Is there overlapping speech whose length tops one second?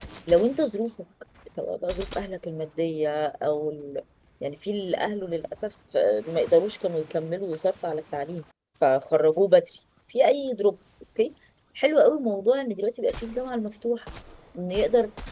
No

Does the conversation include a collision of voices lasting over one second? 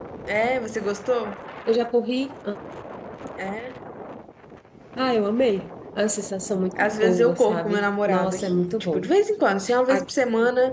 Yes, from 6.8 s

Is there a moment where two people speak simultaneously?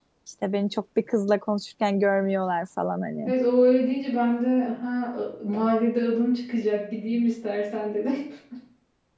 No

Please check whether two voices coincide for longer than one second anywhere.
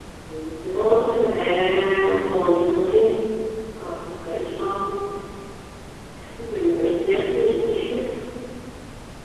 Yes, from 0.7 s

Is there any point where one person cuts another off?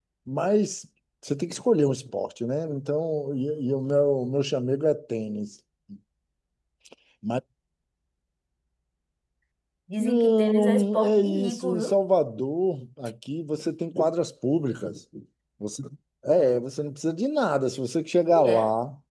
Yes, from 10.0 s

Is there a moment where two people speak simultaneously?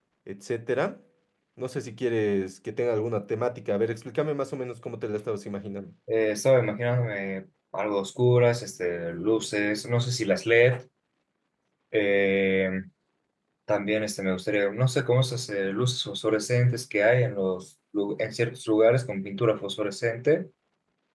No

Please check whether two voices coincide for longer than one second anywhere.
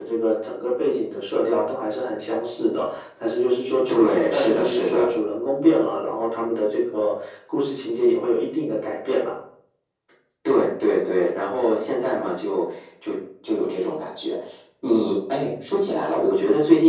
Yes, from 3.9 s

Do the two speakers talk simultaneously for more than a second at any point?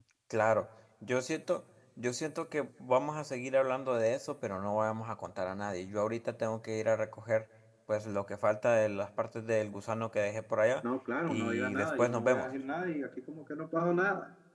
Yes, from 11.3 s

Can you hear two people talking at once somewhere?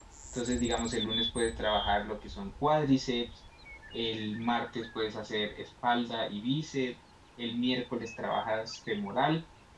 No

